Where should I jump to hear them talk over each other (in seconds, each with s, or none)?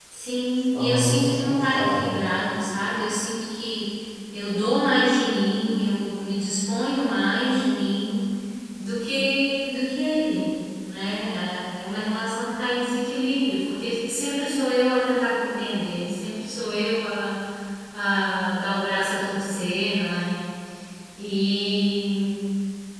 0.7 s